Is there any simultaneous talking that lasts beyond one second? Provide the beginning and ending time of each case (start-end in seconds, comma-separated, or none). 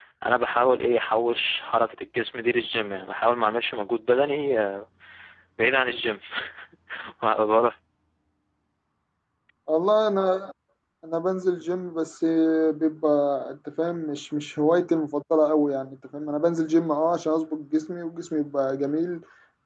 none